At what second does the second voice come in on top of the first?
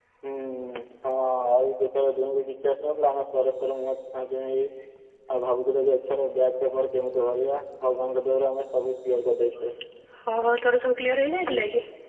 none

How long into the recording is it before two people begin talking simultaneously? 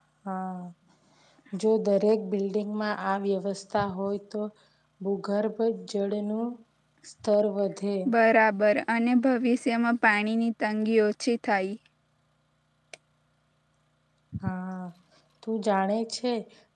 none

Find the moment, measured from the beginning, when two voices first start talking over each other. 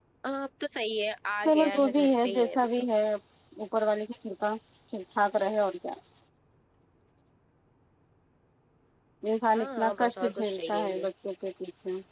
1.4 s

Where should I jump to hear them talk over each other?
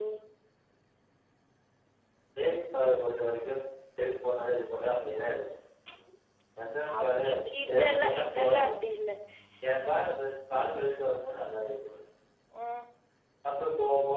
6.9 s

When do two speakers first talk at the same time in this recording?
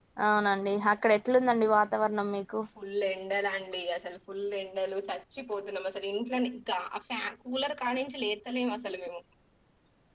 none

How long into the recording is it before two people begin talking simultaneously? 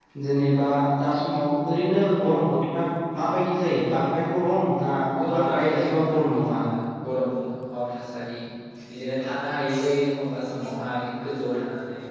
5.4 s

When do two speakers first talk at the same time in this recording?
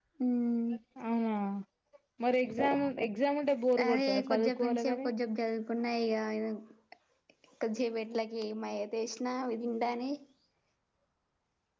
3.8 s

